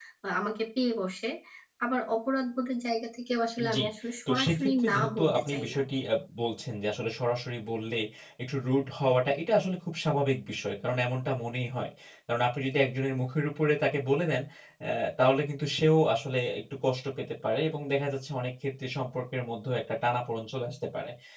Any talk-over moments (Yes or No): Yes